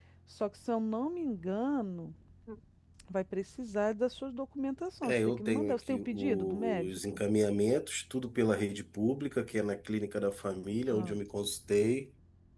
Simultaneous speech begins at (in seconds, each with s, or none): 5.0 s